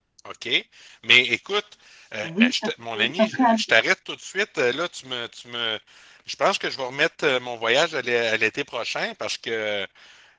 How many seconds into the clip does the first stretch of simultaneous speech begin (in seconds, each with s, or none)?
2.2 s